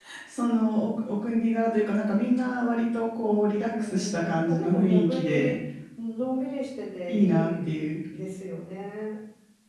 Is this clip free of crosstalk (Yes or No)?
No